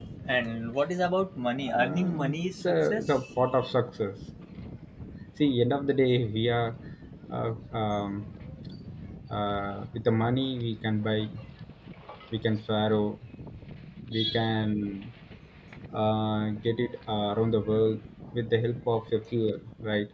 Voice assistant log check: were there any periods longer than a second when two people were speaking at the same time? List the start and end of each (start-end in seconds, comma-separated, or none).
1.7-3.2